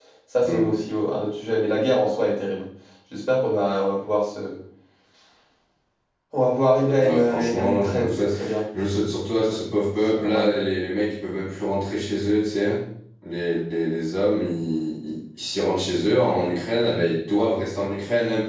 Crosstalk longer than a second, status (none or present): present